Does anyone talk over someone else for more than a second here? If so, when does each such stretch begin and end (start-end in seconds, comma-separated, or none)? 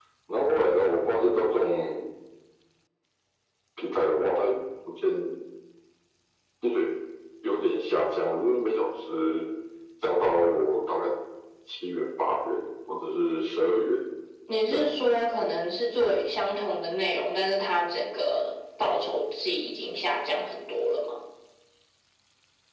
none